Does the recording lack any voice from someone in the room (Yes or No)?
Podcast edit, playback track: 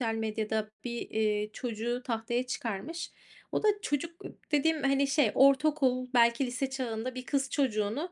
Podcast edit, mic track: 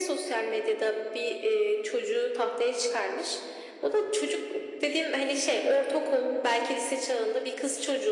Yes